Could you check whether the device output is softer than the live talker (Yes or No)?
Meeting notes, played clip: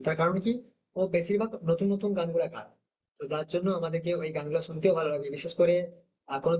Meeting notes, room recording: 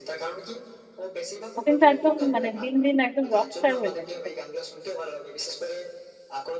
Yes